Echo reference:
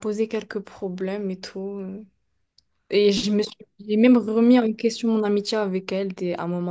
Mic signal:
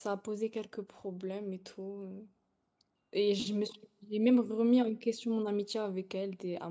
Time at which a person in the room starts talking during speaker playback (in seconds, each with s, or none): none